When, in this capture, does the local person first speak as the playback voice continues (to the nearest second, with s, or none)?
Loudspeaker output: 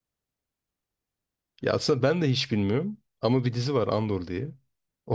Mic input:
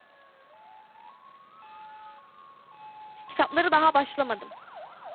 3 s